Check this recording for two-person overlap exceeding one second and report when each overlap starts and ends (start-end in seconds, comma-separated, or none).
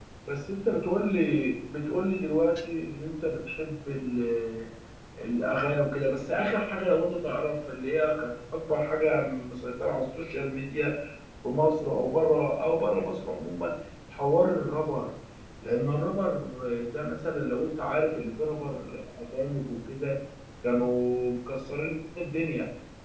none